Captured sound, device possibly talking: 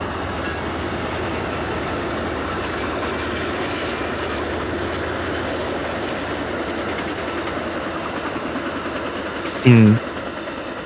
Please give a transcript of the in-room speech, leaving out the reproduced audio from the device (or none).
Sim.